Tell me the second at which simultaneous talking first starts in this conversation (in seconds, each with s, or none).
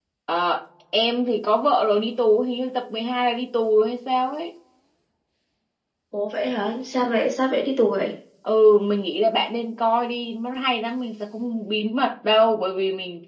none